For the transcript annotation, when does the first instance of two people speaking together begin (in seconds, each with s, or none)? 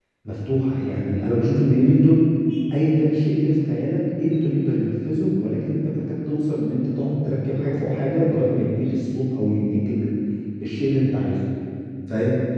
none